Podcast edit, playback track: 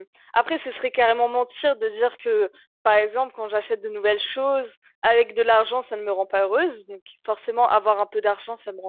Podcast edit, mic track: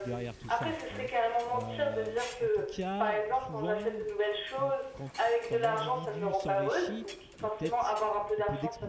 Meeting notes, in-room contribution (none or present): present